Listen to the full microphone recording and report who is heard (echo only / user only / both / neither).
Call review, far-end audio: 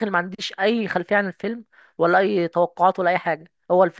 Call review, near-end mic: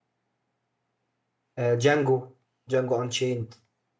user only